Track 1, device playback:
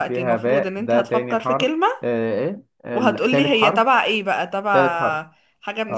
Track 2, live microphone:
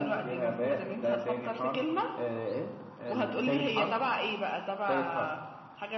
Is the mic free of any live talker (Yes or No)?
Yes